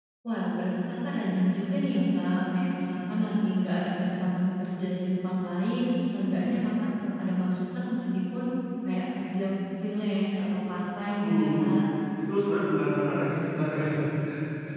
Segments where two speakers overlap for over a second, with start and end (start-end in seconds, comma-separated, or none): none